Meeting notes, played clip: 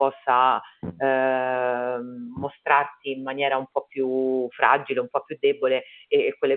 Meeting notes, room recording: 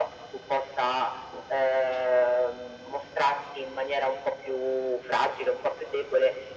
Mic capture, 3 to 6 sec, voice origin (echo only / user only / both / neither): echo only